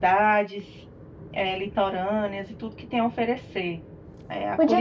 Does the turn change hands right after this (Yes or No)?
Yes